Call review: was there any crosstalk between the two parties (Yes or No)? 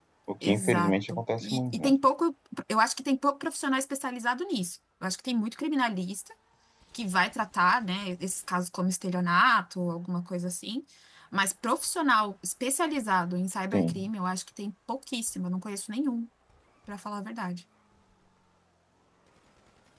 Yes